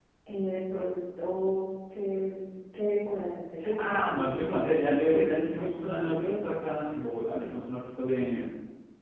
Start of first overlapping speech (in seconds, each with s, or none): 3.6 s